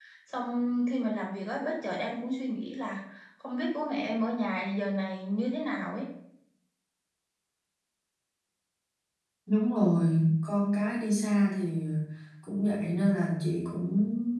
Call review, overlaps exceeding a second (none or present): none